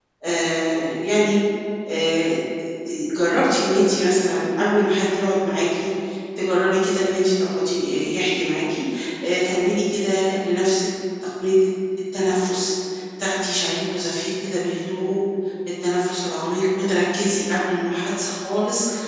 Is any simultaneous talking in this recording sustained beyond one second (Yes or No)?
No